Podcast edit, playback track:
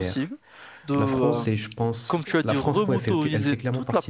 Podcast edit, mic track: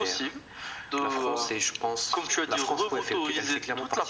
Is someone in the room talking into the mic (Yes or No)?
No